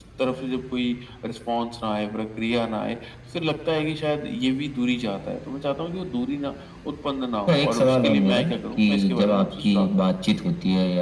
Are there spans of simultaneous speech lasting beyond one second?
Yes, from 7.5 s

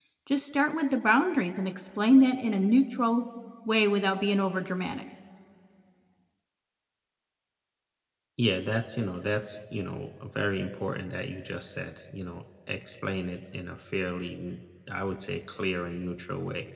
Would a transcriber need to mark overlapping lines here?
No

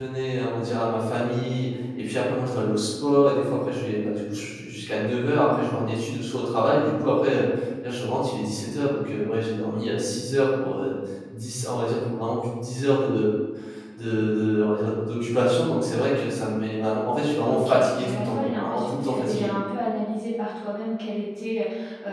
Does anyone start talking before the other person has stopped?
Yes, from 17.5 s

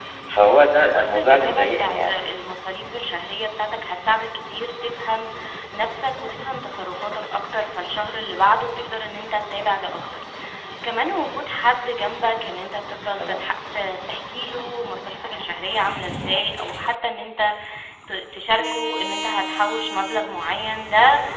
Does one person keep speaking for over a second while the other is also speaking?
Yes, from 0.9 s

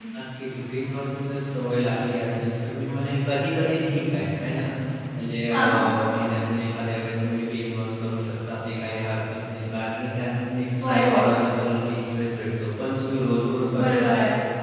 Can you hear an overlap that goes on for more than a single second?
No

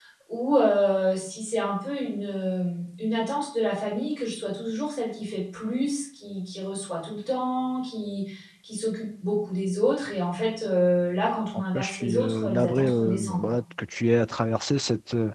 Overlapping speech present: Yes, from 11.7 s

